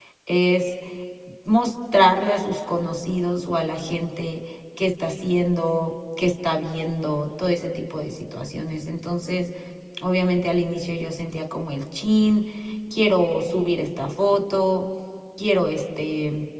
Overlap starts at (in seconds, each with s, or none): none